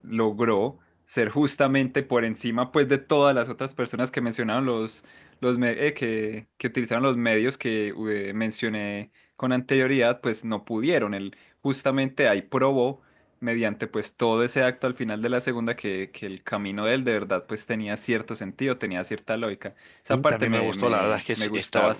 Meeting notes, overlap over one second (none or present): present